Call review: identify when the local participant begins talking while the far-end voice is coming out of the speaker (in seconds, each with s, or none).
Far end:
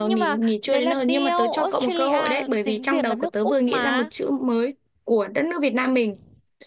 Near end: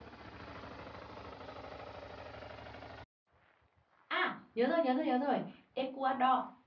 4.1 s